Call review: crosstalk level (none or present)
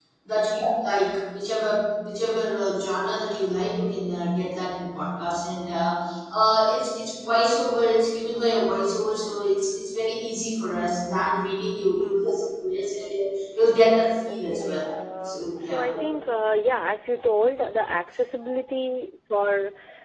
present